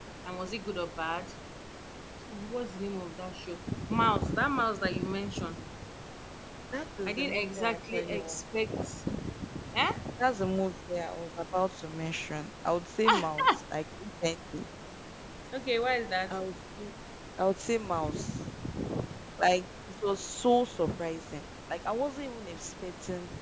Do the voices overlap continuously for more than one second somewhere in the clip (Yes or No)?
Yes